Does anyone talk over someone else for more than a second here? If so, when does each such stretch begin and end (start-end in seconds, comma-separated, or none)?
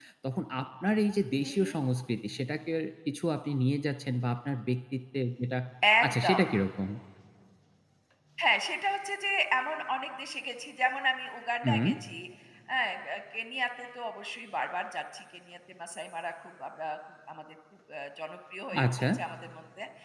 none